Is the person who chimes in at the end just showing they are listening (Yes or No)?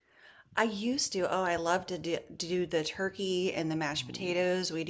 Yes